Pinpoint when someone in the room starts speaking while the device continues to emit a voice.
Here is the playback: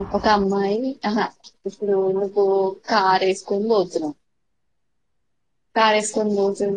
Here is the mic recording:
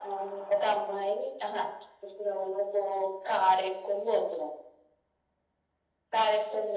none

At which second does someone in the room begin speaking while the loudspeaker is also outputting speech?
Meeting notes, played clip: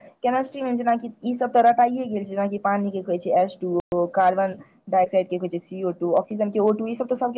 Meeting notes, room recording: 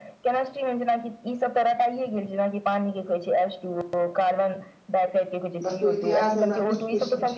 5.7 s

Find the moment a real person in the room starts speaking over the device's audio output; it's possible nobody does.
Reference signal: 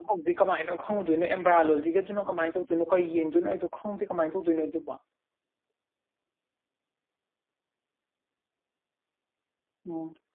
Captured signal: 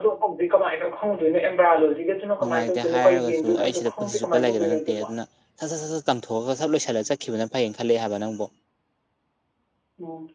2.4 s

